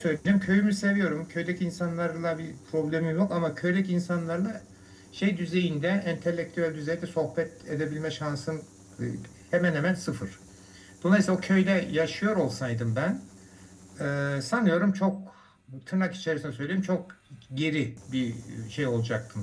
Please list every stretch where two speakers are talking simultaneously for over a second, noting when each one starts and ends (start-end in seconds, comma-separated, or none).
none